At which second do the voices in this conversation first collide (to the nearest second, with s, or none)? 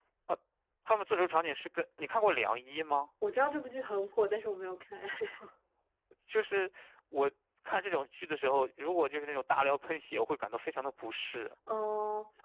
none